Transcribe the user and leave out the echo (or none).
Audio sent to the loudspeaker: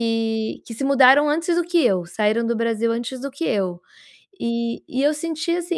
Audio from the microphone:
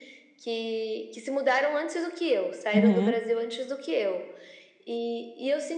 Aham.